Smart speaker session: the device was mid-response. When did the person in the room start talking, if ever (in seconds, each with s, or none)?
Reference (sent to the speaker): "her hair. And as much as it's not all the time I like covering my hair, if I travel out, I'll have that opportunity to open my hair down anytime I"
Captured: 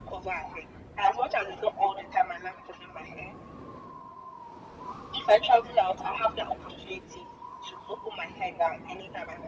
none